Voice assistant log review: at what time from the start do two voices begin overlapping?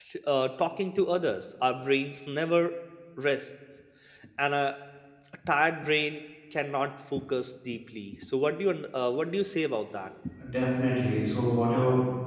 none

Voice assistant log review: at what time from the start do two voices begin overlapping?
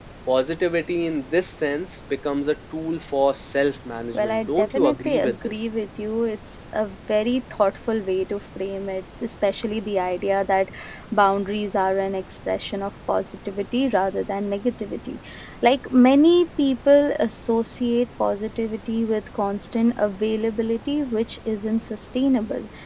4.1 s

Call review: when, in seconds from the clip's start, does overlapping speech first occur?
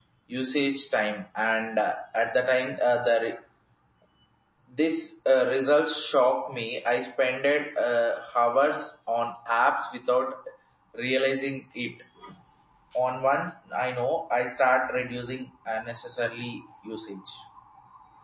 none

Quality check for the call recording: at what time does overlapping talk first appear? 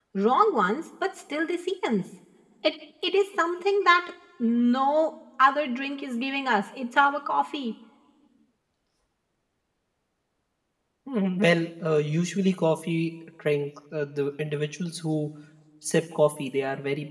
none

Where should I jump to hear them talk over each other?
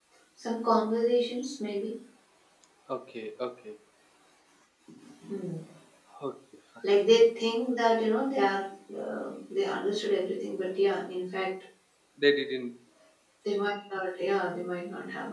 none

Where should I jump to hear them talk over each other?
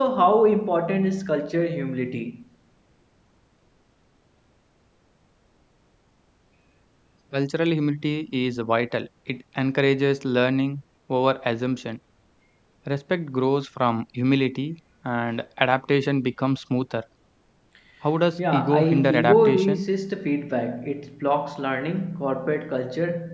18.4 s

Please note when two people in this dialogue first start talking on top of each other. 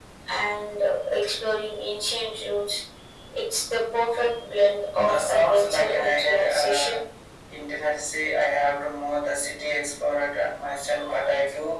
5.0 s

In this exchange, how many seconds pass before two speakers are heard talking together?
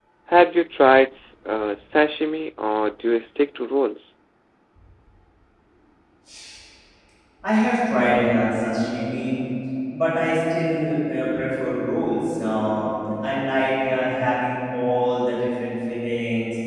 none

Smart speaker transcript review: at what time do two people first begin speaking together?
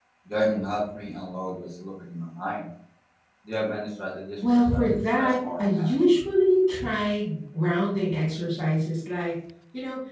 4.4 s

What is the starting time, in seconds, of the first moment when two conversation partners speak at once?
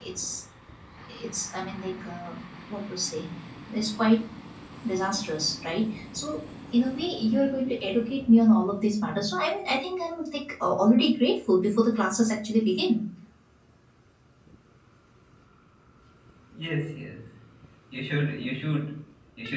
none

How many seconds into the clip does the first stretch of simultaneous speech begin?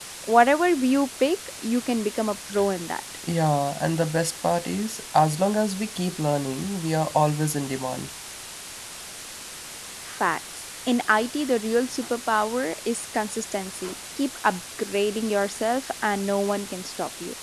none

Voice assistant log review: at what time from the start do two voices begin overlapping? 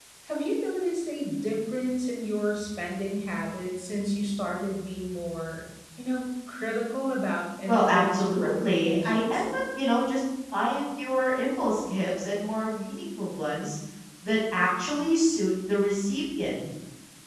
7.7 s

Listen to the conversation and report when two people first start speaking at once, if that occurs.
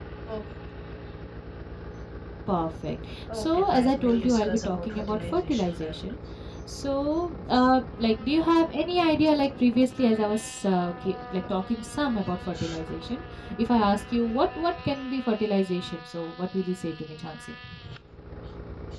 3.3 s

